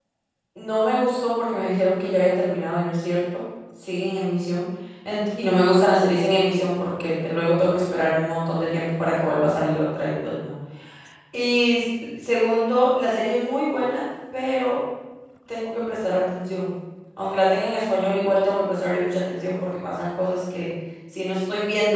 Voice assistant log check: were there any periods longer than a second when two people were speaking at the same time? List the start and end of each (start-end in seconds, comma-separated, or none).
none